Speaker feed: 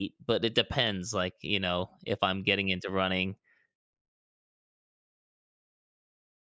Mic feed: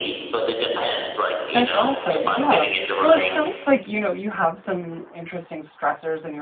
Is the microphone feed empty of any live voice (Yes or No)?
No